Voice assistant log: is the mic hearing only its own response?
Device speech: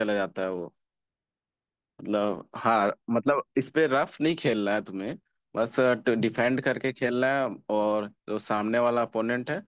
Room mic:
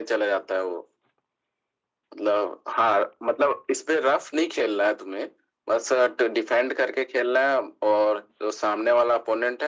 Yes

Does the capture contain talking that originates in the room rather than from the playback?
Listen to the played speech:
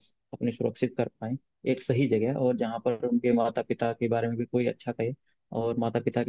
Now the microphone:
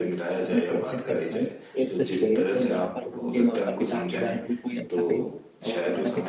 Yes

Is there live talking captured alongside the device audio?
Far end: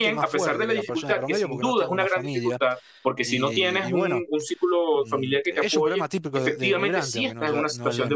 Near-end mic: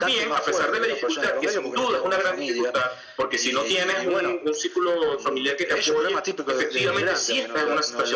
Yes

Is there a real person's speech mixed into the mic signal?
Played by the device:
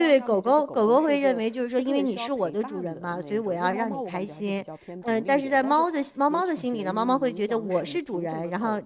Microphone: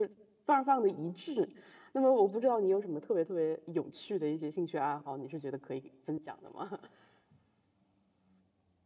Yes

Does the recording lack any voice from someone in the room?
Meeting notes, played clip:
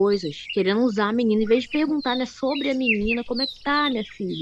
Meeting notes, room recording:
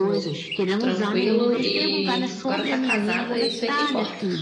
No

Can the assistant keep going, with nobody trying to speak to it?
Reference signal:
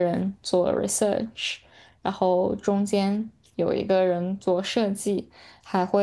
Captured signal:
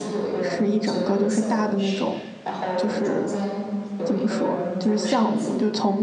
No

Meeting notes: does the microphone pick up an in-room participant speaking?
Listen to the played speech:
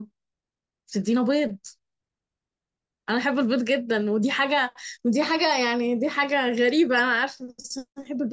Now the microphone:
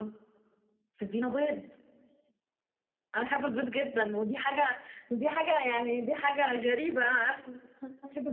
No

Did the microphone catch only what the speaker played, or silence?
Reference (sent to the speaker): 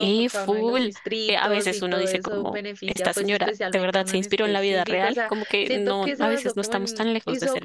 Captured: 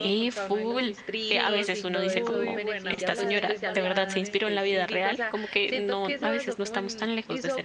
No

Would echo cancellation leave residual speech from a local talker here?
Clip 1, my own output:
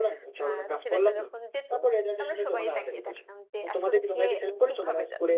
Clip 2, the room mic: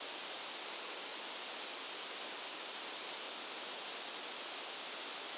No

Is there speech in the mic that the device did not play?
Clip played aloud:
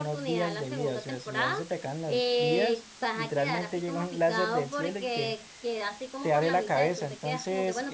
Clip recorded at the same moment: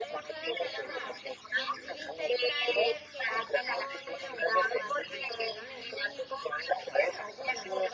Yes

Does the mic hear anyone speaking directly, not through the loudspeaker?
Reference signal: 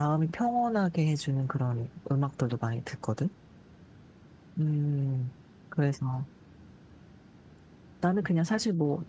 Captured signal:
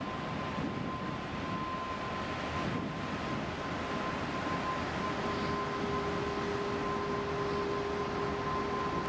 No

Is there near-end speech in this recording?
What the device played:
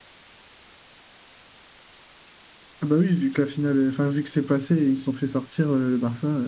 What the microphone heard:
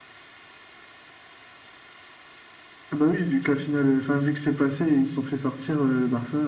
No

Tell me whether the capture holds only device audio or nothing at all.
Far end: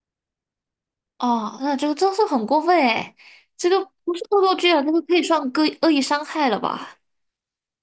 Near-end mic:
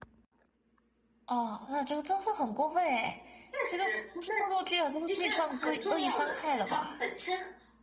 No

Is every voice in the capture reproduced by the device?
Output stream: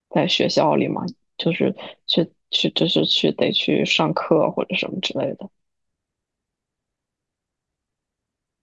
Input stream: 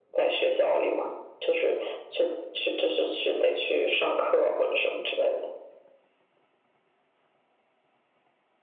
Yes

